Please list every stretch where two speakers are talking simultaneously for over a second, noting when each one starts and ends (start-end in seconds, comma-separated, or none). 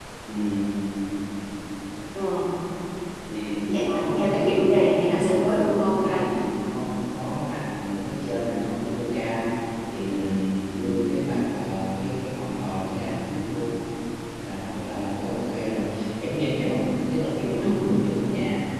3.7-6.2